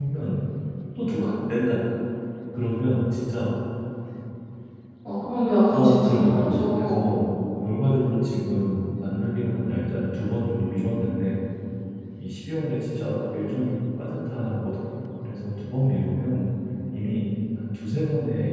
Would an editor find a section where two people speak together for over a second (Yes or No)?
Yes